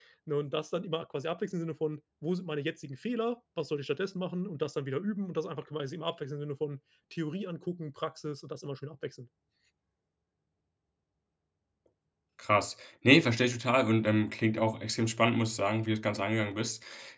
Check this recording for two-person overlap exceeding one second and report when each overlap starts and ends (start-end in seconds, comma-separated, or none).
none